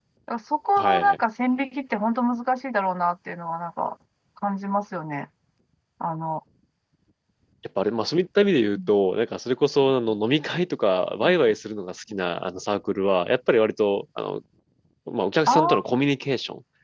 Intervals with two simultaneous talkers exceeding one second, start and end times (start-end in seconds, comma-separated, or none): none